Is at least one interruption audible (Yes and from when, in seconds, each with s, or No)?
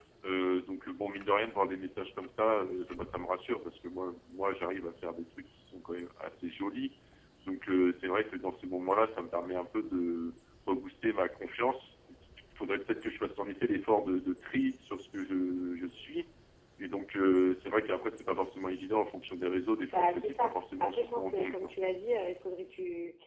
Yes, from 19.9 s